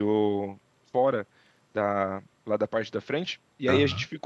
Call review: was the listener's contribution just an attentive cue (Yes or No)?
Yes